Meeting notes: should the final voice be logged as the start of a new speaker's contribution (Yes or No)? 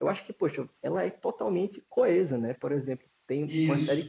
No